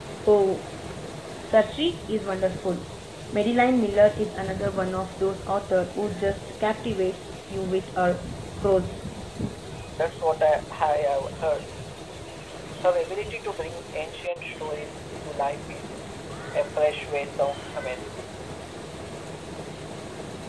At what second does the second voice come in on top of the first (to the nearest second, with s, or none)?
none